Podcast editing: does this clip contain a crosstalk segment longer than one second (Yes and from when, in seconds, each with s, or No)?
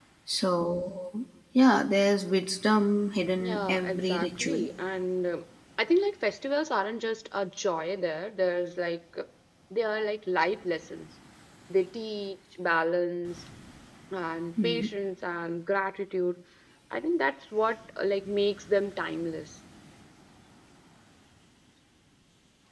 Yes, from 3.4 s